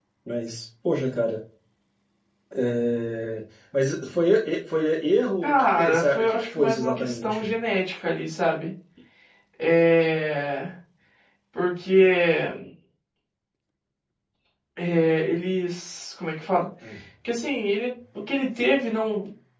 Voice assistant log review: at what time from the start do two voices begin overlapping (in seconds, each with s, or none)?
5.4 s